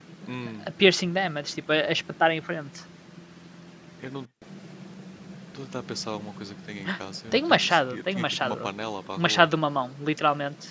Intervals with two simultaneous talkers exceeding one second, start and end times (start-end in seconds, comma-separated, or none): 7.3-8.7